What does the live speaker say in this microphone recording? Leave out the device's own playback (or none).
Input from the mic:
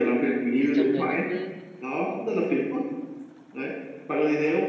trong người nó cứ